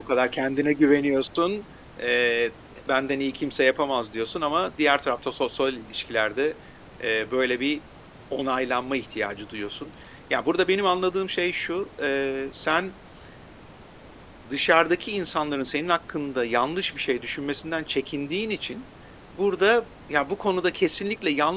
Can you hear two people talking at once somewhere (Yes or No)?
No